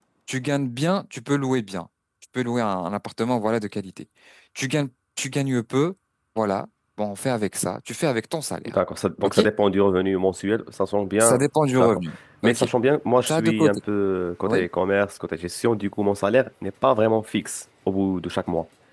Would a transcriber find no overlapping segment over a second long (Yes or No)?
Yes